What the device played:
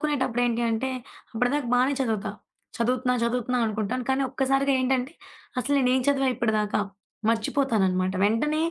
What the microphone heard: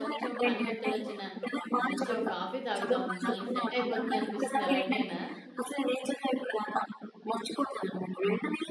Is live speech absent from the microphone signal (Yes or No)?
No